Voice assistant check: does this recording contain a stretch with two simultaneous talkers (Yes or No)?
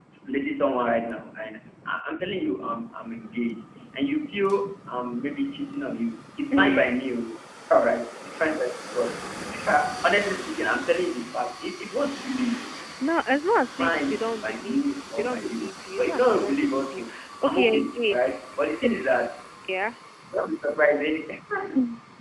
Yes